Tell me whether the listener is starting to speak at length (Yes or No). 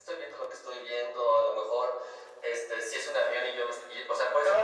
Yes